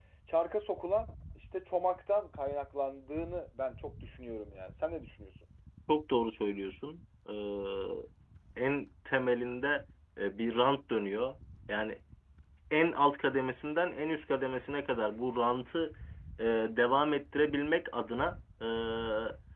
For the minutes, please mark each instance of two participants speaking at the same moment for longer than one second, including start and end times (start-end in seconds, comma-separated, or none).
none